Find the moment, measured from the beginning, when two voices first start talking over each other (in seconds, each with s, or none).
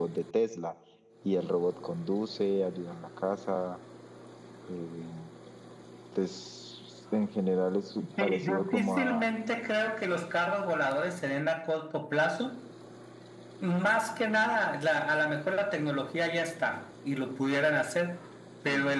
8.0 s